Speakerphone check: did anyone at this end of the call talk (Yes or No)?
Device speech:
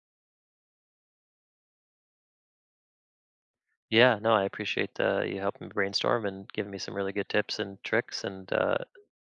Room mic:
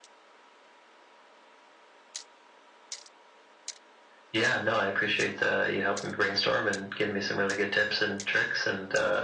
No